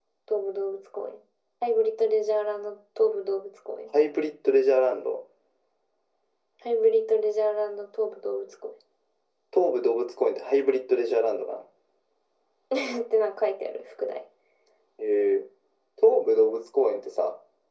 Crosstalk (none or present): none